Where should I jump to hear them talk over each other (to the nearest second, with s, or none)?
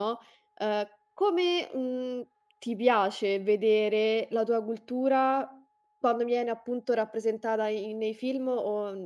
none